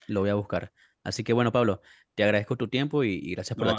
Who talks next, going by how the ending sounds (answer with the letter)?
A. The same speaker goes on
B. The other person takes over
B